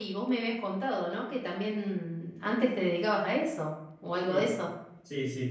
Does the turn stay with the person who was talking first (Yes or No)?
No